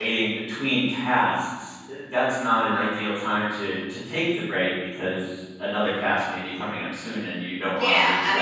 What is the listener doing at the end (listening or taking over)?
taking over